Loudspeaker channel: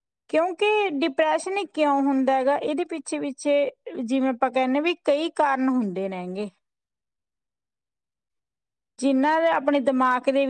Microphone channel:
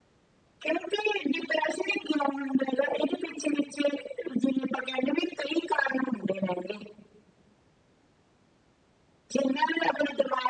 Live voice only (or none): none